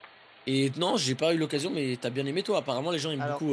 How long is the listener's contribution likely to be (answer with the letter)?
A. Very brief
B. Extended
B